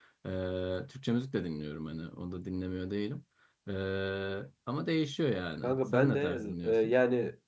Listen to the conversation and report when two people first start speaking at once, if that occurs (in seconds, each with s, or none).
5.6 s